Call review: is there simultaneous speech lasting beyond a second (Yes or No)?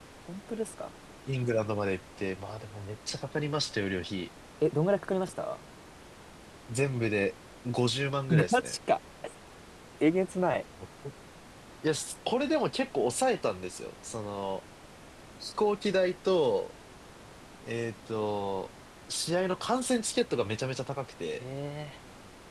No